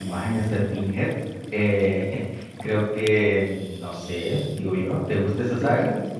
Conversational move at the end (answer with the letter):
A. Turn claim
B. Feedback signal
A